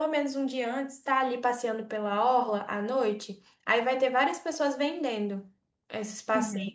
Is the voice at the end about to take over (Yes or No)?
No